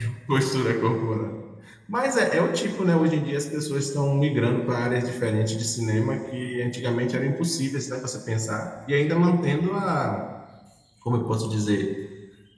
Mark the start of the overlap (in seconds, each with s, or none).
none